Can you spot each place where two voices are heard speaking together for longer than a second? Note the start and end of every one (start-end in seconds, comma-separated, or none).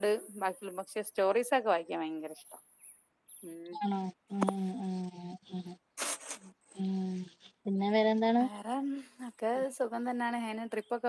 none